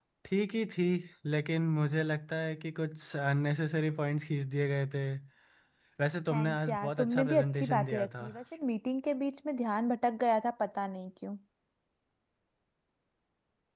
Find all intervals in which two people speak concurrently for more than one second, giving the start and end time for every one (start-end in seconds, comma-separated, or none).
6.3-8.3